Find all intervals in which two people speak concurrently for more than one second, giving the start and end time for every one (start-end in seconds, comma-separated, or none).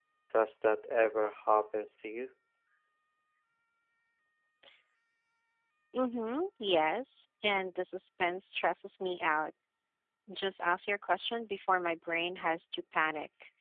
none